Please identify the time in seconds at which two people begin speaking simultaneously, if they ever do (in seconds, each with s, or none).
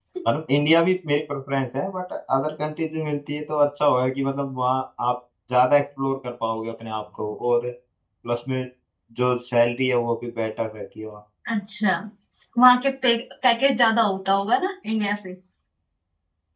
none